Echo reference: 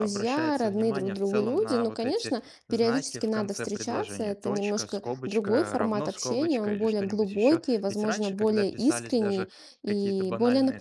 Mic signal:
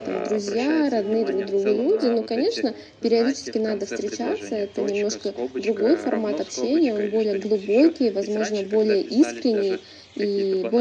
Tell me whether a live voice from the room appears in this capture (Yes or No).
No